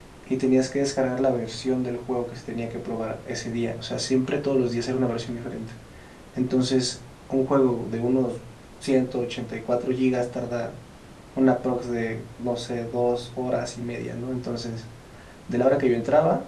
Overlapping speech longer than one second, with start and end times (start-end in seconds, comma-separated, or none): none